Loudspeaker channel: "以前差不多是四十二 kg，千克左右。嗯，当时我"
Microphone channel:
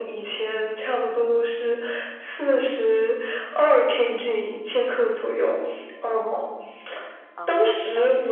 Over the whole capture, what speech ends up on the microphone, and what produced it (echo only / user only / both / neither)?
both